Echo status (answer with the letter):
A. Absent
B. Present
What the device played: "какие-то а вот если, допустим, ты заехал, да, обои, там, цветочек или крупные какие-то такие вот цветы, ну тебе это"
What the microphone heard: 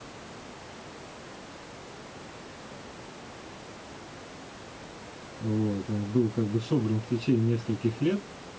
A